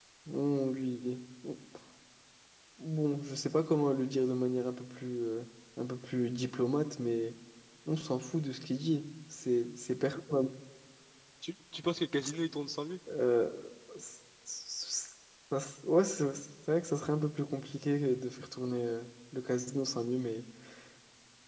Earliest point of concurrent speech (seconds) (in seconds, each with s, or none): none